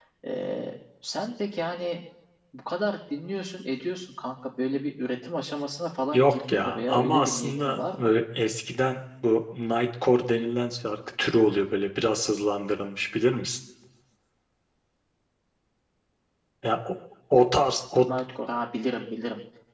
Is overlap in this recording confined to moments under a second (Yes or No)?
No